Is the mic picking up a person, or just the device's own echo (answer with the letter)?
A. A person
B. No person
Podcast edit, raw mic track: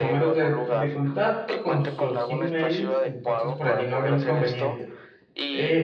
A